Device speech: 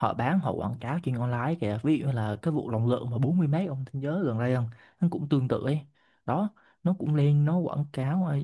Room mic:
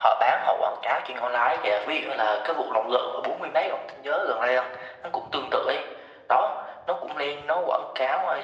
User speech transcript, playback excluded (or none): none